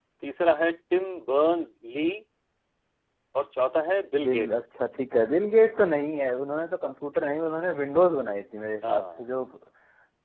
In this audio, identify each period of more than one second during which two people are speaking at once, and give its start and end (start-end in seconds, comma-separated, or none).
none